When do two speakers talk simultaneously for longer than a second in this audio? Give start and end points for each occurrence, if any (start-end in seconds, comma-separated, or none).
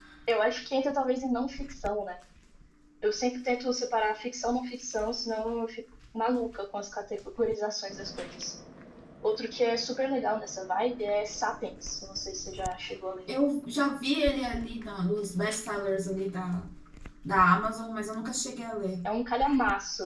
none